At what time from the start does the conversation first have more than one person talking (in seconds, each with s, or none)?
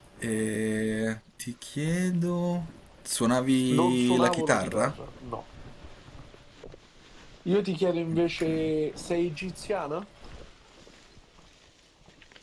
3.7 s